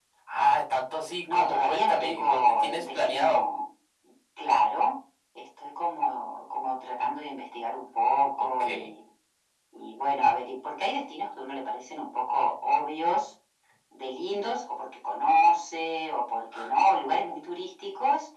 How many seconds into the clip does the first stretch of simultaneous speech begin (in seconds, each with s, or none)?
1.3 s